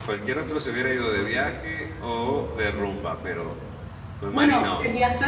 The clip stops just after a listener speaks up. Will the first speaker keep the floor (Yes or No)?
No